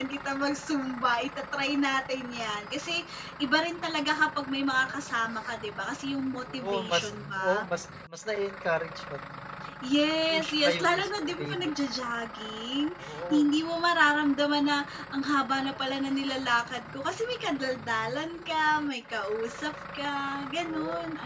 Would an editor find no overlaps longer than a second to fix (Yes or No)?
No